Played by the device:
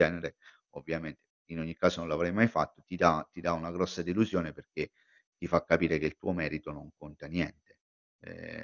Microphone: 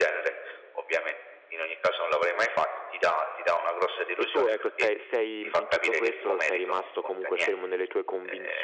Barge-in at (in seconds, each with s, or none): 4.2 s